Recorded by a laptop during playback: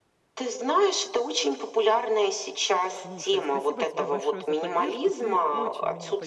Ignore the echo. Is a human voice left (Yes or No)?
Yes